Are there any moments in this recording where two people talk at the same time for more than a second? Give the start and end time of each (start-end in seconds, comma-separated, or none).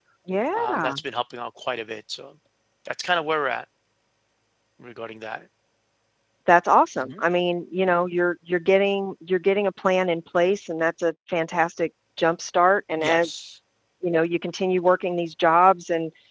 none